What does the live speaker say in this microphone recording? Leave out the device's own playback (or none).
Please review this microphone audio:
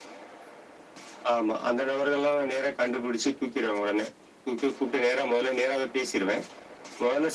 none